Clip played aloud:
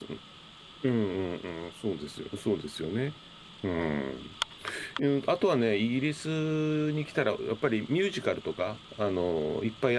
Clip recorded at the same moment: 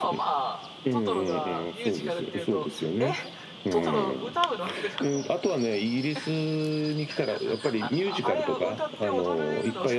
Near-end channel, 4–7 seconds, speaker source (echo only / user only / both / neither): both